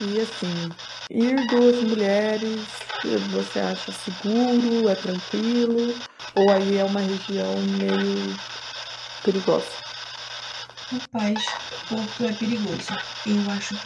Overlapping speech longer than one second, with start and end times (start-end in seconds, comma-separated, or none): none